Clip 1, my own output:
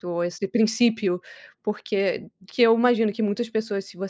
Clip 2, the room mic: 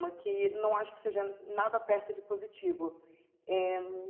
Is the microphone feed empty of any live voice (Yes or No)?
No